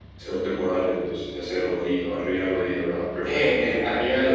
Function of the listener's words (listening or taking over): taking over